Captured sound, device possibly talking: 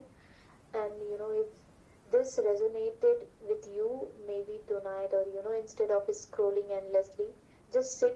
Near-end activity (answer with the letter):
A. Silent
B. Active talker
A